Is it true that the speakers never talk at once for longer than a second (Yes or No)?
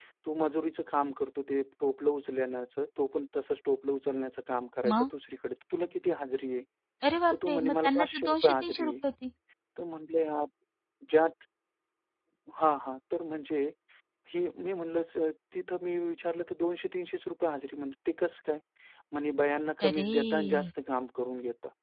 No